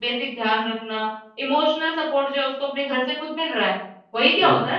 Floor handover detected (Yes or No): No